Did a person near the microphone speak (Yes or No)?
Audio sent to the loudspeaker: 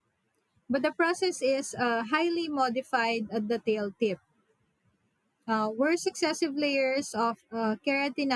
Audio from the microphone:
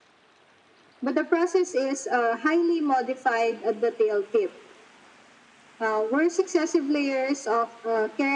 No